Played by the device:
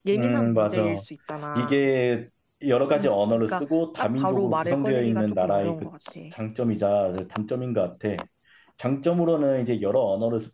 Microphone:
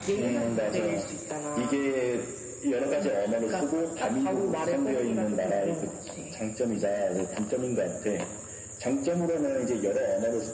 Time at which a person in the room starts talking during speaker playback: none

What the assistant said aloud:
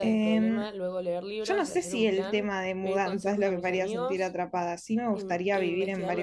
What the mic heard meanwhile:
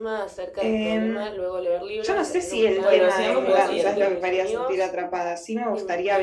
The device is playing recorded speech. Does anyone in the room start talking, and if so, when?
2.8 s

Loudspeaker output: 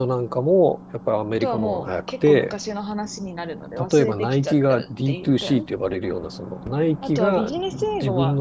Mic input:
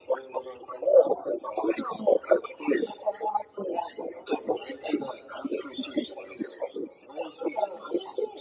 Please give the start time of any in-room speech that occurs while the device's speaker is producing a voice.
none

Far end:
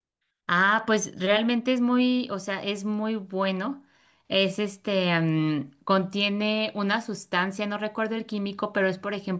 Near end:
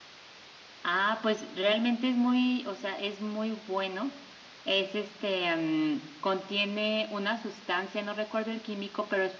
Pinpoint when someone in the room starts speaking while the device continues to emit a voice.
none

